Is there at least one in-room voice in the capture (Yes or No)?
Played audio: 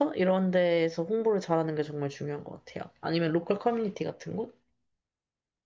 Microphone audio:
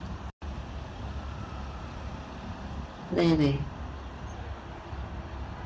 Yes